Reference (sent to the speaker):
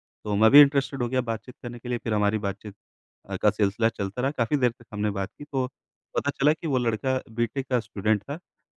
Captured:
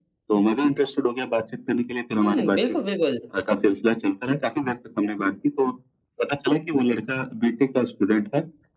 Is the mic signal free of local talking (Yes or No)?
No